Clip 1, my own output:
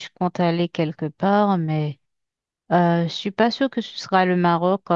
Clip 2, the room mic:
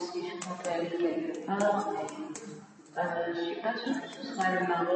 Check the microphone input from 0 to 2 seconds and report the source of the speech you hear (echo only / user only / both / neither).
echo only